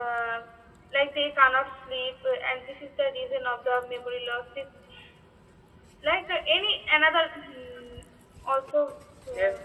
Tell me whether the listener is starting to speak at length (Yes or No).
Yes